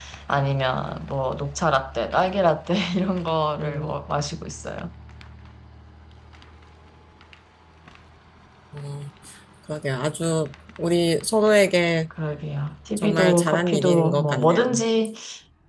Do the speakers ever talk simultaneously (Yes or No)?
Yes